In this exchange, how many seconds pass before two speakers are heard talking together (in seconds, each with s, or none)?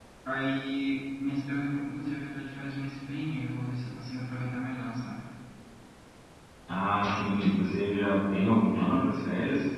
none